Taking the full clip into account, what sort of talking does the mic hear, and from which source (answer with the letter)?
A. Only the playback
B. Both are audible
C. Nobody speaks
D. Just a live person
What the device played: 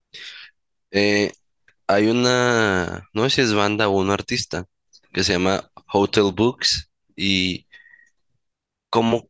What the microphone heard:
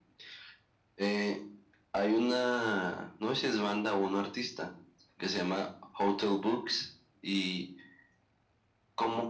A